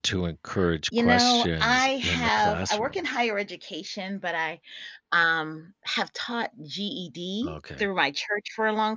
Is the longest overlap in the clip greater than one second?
Yes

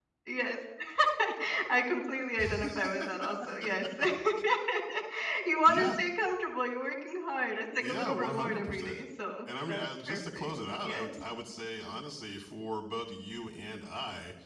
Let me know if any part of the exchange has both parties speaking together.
Yes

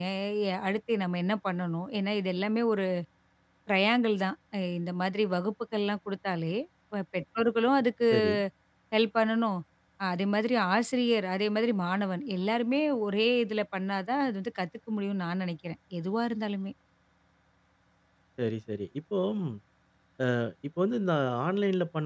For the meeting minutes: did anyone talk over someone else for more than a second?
No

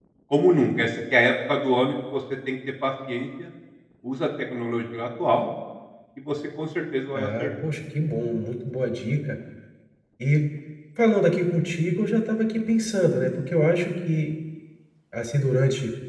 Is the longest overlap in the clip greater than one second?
No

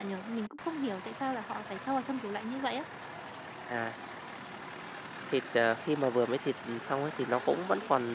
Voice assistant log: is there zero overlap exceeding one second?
Yes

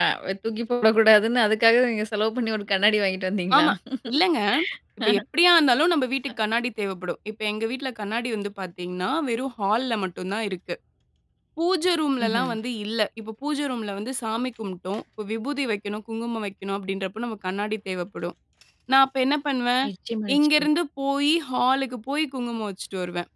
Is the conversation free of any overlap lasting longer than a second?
Yes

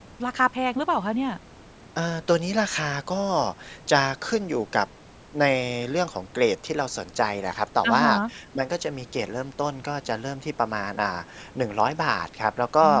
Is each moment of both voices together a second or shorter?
Yes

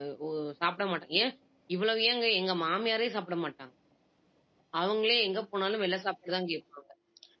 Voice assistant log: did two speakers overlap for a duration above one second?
No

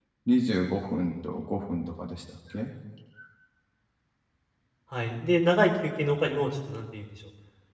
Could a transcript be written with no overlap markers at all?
Yes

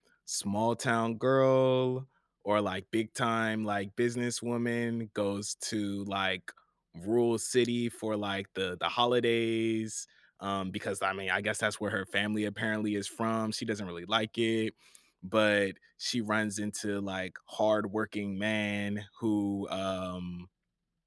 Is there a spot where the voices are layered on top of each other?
No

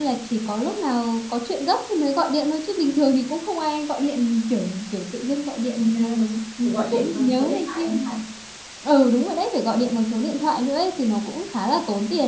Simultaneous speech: Yes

